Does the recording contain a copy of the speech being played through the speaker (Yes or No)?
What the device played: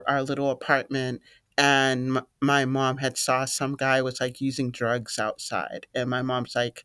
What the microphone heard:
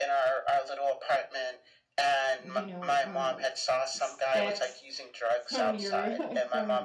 Yes